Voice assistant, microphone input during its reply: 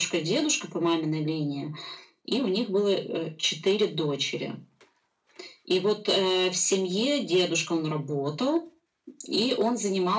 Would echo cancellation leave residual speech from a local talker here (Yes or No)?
No